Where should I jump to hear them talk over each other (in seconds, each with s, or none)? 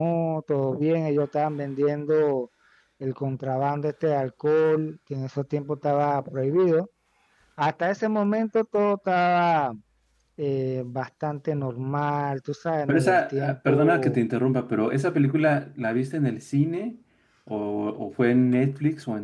12.9 s